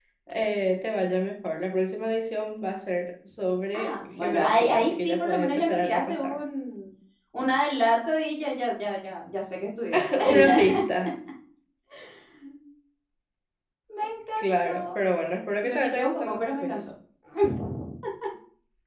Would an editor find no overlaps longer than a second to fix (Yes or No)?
No